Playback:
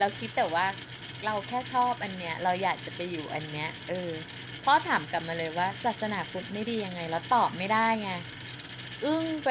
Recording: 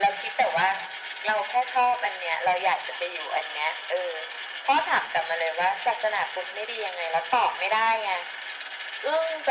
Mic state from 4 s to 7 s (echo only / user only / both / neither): echo only